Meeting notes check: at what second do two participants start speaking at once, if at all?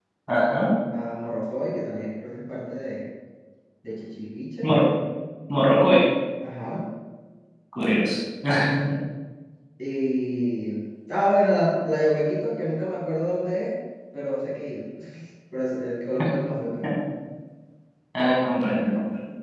none

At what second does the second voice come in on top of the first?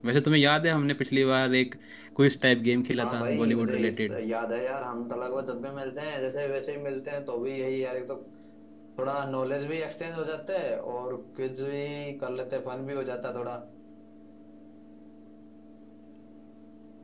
3 s

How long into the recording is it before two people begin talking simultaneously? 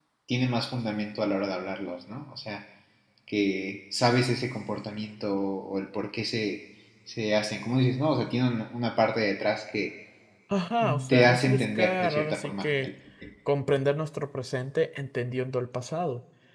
11 s

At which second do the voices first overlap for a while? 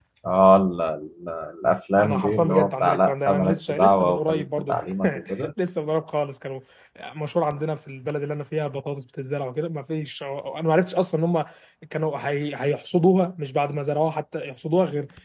2 s

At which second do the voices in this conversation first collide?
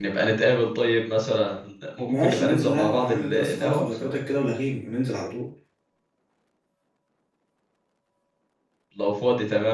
2 s

